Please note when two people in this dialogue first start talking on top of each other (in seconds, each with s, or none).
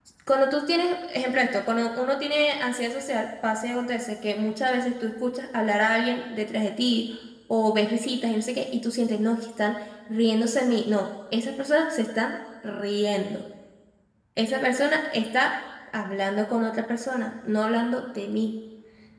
none